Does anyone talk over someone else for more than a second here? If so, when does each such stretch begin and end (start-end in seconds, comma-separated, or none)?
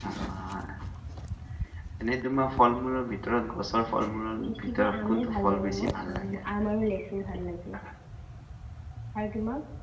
4.5-6.4